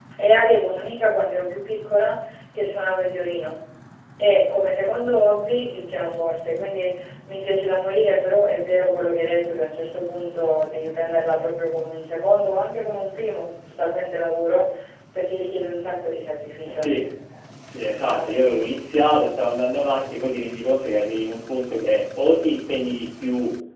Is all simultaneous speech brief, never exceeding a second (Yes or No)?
Yes